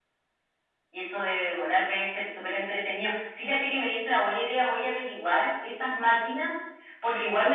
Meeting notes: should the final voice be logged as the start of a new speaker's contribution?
No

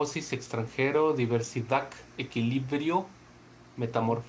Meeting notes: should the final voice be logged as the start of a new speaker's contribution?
No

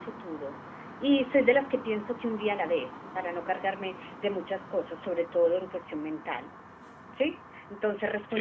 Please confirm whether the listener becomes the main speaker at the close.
No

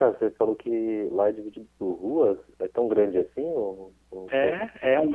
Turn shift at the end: Yes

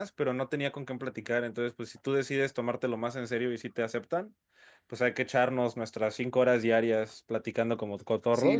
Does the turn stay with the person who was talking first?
No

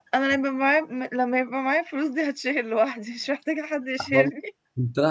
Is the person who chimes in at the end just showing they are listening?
No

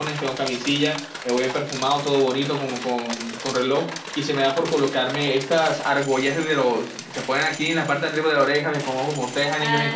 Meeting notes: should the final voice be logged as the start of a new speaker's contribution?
No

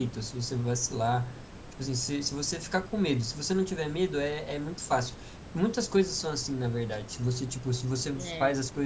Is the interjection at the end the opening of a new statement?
No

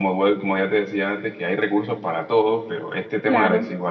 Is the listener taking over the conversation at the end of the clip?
No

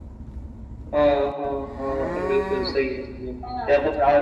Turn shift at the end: No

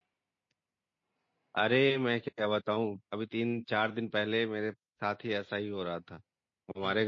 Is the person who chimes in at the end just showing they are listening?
Yes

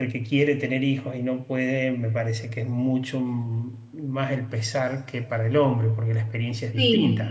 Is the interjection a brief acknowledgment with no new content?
No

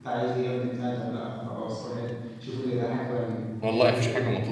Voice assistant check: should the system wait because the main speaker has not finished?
No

